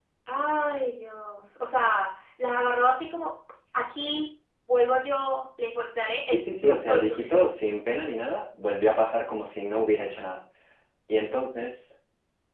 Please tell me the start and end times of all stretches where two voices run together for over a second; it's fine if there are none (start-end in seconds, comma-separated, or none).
6.2-7.5